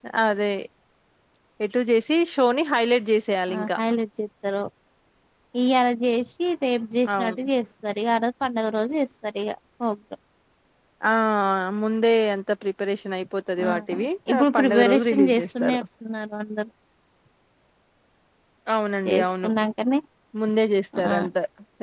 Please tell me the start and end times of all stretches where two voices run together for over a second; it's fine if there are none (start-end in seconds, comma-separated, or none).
14.3-15.8